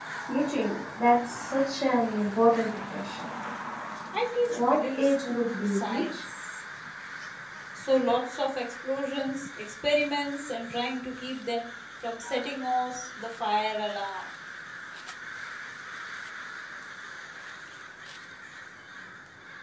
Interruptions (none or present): present